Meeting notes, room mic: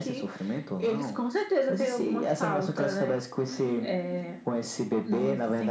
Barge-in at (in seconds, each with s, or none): 3.5 s